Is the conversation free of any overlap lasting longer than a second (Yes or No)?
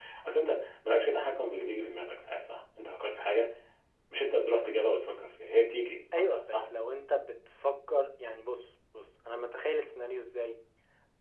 Yes